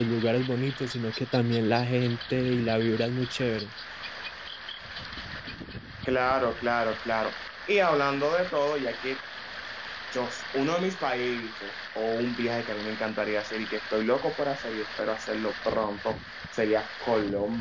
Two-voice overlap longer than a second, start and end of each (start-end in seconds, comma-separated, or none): none